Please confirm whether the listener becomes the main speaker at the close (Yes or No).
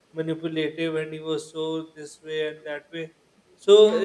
No